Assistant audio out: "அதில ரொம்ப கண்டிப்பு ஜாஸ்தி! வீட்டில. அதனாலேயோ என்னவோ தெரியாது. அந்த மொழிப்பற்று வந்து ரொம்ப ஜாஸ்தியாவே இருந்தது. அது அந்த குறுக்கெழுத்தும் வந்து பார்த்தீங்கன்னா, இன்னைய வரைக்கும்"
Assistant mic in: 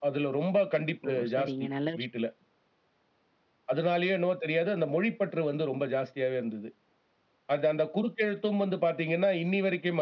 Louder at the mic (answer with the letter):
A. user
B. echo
B